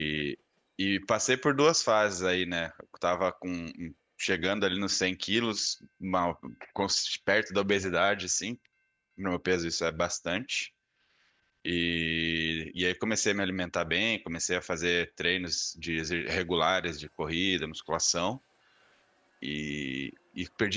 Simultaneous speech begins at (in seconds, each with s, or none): none